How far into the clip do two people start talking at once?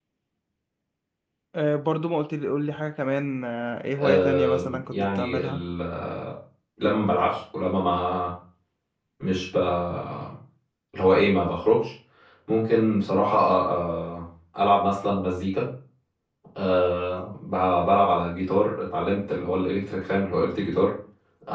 4 s

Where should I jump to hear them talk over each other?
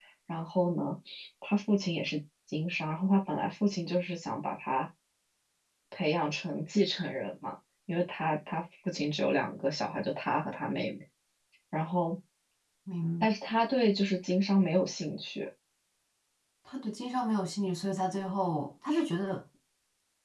none

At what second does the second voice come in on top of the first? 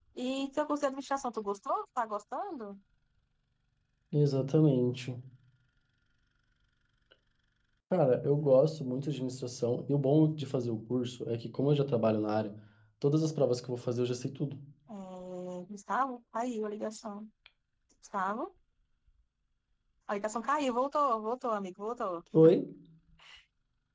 none

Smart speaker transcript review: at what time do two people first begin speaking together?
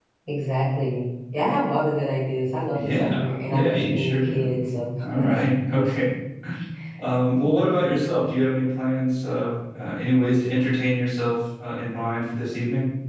3 s

